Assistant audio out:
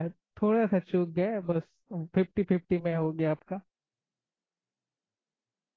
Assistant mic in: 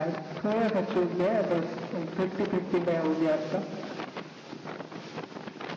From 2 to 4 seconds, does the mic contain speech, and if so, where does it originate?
echo only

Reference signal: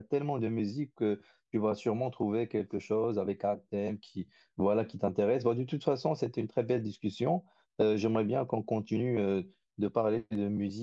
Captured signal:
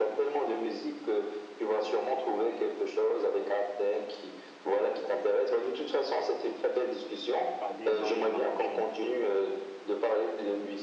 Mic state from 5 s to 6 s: echo only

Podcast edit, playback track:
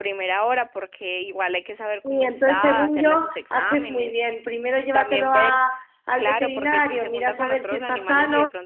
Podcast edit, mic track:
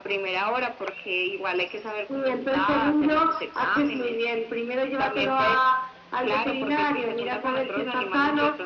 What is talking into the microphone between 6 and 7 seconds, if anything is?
echo only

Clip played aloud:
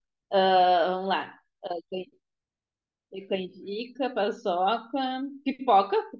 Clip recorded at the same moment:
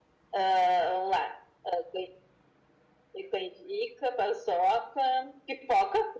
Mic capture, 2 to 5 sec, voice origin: echo only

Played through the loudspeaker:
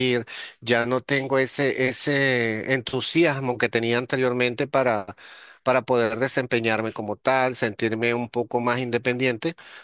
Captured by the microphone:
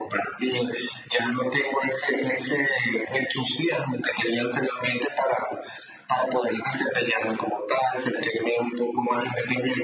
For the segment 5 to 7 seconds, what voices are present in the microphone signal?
echo only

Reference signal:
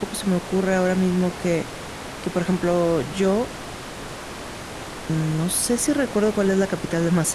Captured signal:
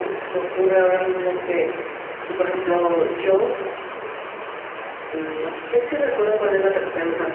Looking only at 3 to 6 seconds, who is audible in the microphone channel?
echo only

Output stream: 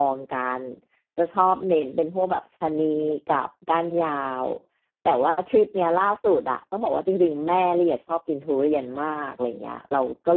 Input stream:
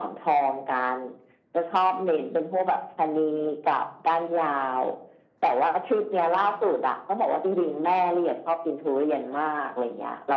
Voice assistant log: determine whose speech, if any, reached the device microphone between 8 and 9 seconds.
echo only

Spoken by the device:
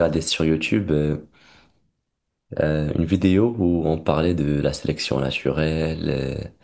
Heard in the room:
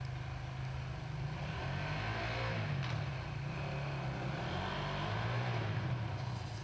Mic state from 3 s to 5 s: neither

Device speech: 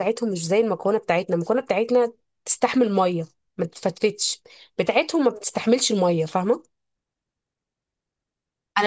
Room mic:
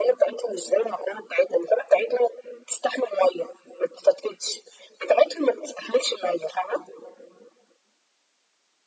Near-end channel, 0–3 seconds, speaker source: echo only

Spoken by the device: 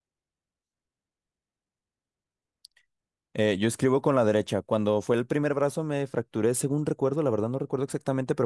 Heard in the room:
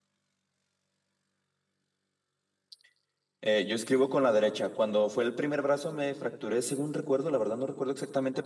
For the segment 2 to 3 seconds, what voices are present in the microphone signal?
neither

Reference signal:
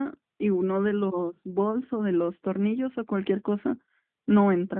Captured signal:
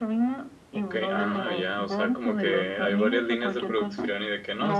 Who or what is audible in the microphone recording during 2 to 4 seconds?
both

